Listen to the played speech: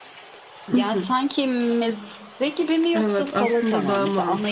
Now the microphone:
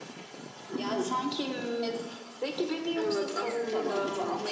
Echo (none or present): present